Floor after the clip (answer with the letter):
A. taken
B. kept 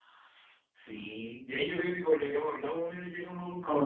A